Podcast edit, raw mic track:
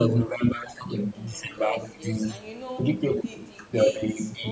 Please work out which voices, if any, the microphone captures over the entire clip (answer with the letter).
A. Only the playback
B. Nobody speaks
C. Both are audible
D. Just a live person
C